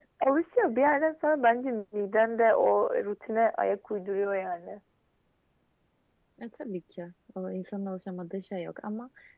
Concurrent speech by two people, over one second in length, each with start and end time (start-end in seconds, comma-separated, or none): none